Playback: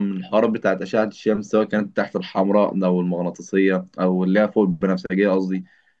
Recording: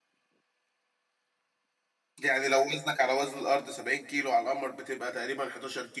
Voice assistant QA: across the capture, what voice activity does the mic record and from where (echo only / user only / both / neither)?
user only